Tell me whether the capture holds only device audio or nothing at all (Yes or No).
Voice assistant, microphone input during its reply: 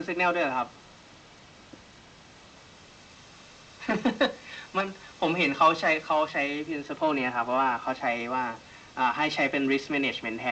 Yes